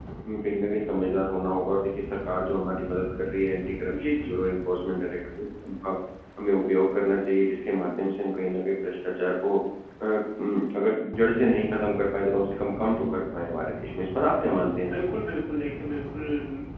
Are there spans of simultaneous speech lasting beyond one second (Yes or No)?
No